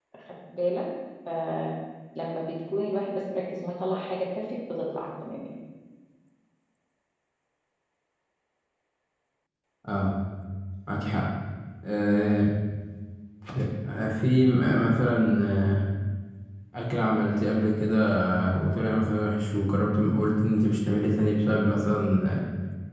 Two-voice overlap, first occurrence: none

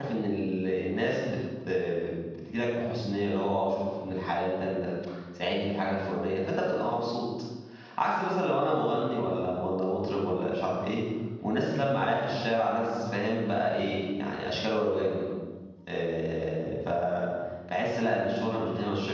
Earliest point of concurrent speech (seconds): none

